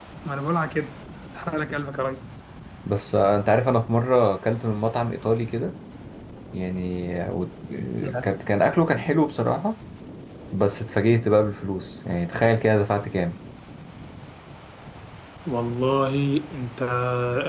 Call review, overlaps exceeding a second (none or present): none